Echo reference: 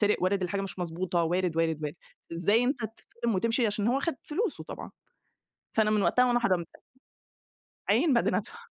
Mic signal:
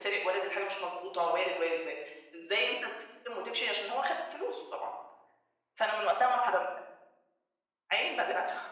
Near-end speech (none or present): none